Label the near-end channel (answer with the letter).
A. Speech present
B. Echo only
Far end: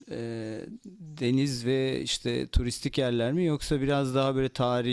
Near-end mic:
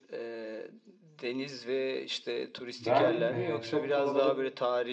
A